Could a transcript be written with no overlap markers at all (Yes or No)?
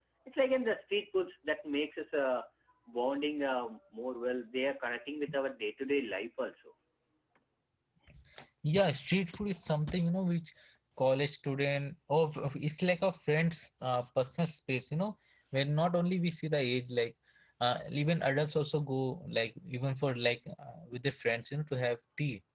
Yes